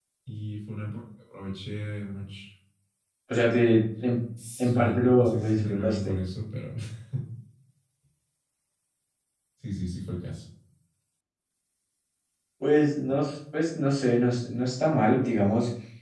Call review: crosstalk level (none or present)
present